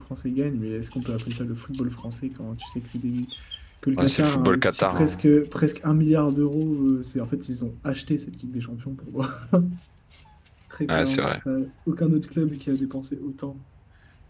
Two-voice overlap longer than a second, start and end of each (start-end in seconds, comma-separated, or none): 4.0-5.2